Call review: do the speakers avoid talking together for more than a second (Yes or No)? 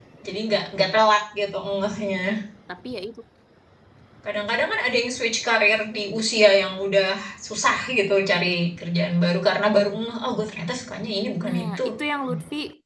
Yes